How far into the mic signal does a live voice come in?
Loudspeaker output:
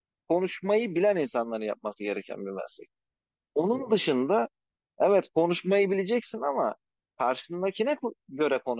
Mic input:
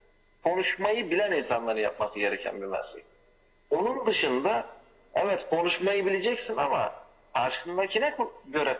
none

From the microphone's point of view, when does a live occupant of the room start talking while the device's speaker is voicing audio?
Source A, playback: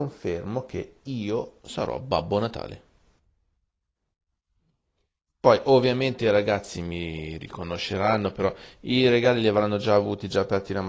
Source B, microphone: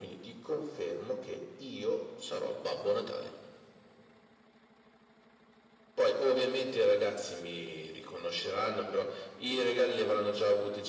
none

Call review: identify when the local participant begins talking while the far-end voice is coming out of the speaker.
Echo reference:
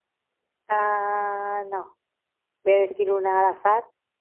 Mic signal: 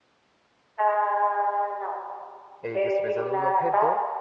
2.6 s

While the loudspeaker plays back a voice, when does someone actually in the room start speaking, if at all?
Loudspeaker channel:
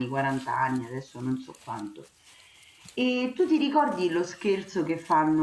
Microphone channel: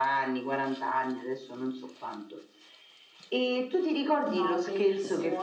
4.3 s

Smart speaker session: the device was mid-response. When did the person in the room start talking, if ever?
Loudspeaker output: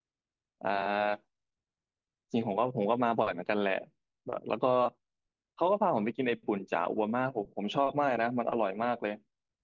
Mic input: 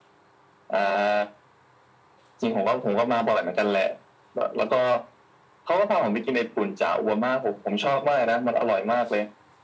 none

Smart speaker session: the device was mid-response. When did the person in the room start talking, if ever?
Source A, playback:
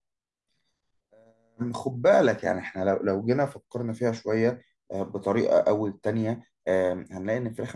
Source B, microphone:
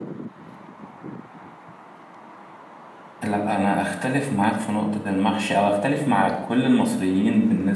3.2 s

